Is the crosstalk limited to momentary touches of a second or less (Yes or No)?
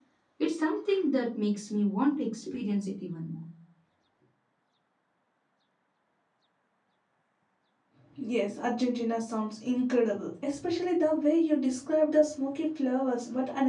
Yes